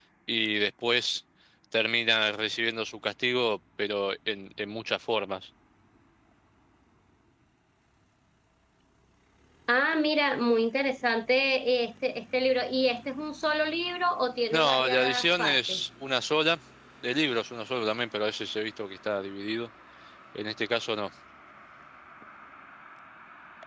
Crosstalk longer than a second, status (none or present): present